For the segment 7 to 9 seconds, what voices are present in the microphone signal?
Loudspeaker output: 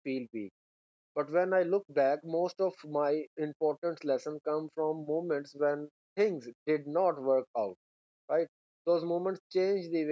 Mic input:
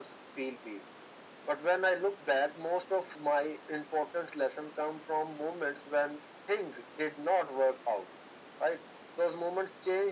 echo only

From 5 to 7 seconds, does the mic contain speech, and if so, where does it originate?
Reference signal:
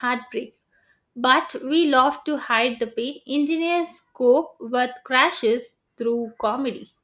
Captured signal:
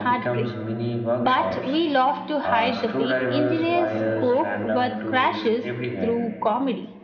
both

